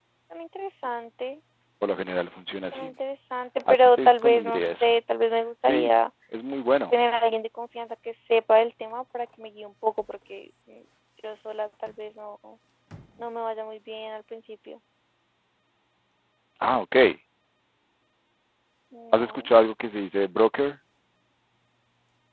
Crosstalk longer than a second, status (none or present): present